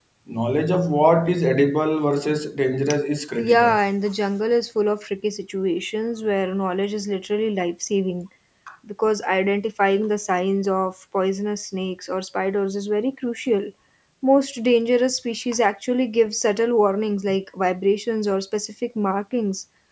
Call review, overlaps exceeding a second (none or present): none